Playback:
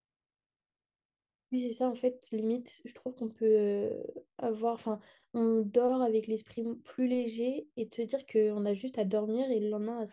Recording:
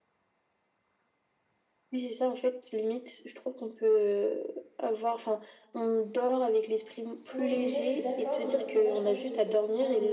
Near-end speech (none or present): present